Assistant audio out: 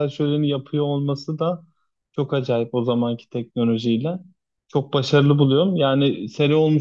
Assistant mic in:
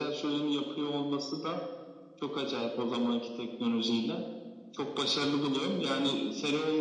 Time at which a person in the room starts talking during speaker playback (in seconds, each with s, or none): none